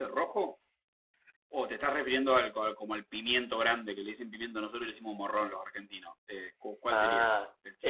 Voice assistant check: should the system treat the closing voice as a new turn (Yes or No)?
Yes